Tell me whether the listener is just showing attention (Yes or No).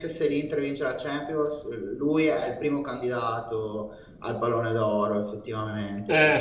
No